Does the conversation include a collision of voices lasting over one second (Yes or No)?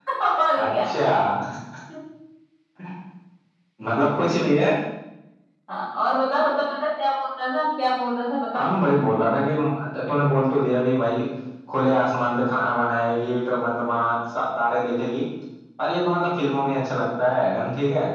No